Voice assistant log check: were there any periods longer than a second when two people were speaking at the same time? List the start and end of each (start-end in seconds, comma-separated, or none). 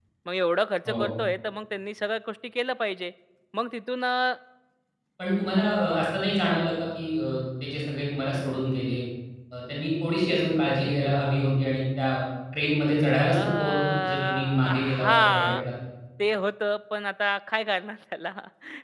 13.3-15.6